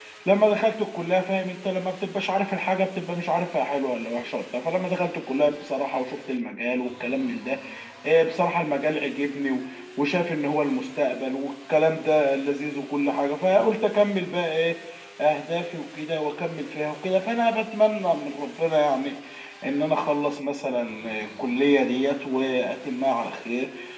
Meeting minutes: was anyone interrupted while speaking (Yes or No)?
No